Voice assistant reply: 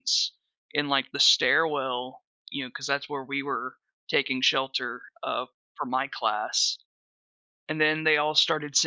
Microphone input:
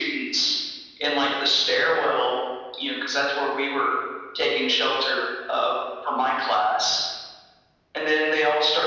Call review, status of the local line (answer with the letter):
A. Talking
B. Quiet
B